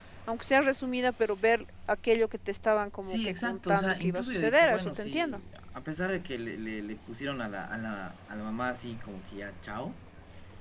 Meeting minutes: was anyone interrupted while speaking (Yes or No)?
Yes